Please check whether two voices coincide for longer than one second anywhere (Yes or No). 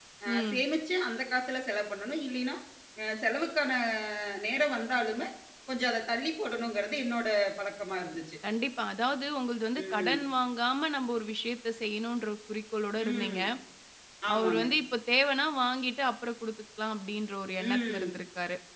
No